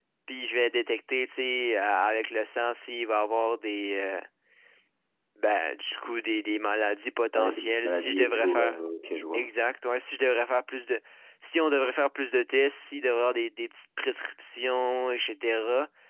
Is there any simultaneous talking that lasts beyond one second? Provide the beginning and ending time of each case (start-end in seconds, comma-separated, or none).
7.3-8.8